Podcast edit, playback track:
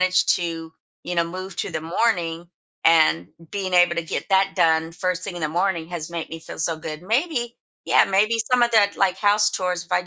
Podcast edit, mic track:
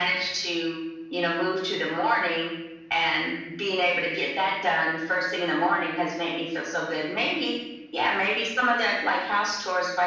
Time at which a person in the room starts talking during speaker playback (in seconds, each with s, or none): none